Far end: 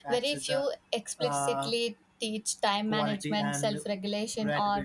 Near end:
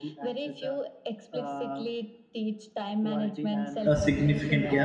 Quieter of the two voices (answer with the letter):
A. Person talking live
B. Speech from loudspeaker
B